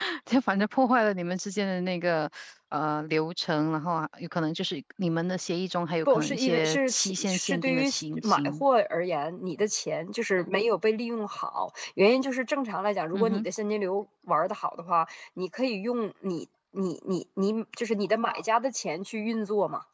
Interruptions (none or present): present